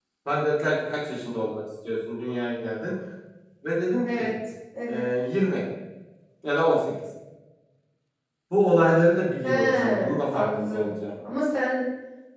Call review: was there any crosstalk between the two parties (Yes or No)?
Yes